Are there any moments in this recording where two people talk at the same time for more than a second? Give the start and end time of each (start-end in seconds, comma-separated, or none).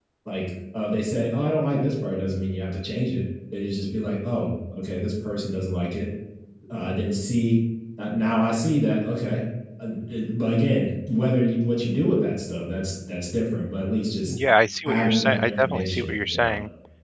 14.8-16.5